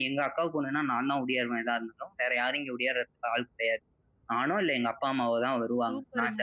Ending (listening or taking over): taking over